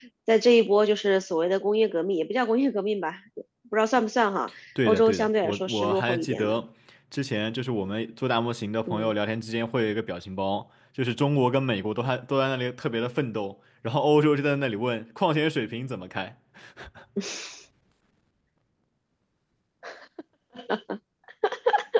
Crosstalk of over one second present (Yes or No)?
Yes